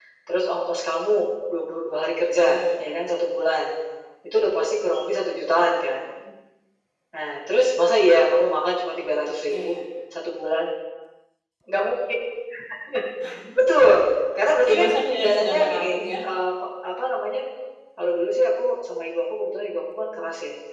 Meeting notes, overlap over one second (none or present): present